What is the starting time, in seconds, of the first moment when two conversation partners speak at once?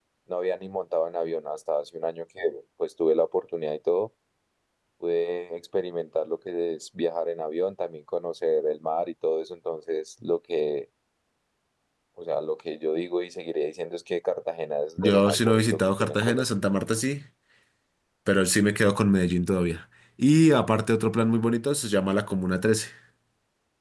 15.0 s

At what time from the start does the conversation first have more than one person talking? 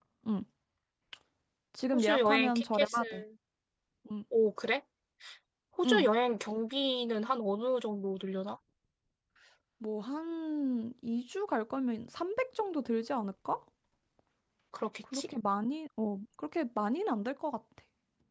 1.9 s

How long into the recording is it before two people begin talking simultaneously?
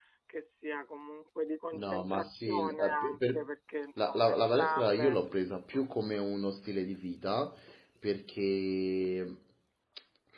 1.8 s

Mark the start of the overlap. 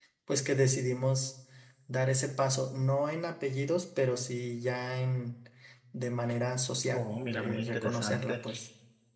6.9 s

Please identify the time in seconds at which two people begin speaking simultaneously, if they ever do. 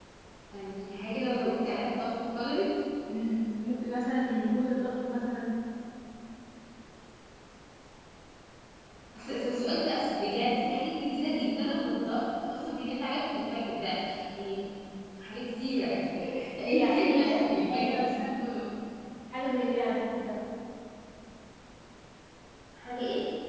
16.6 s

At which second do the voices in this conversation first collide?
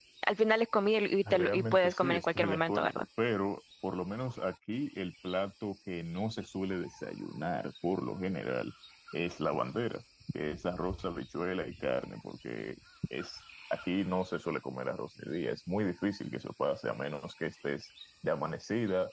1.2 s

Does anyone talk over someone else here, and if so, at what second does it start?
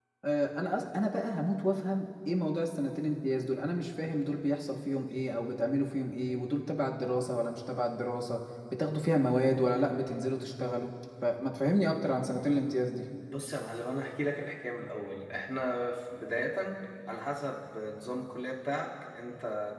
none

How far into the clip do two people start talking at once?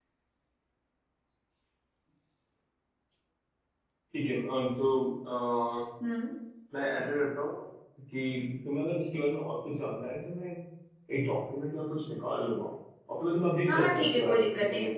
13.7 s

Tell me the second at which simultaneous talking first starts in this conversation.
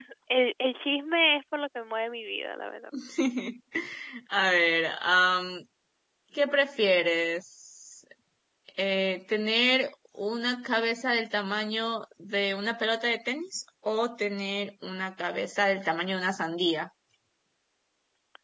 none

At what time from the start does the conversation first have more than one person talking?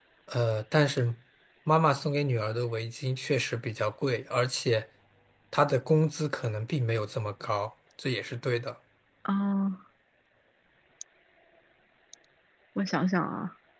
none

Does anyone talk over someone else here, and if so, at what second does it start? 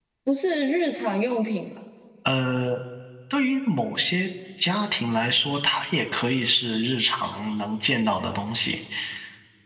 none

